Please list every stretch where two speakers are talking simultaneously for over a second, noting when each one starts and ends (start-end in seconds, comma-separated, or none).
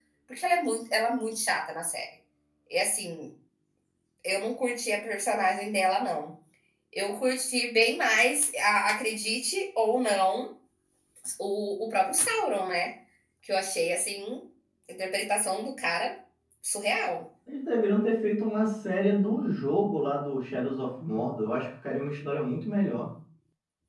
none